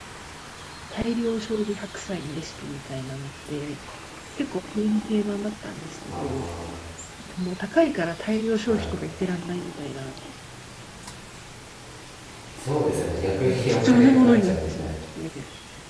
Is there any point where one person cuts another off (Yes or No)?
Yes